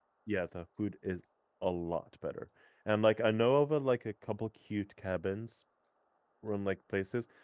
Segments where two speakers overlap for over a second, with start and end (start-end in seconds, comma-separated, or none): none